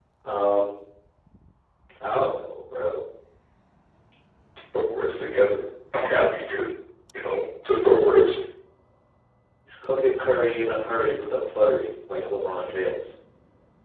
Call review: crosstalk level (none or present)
none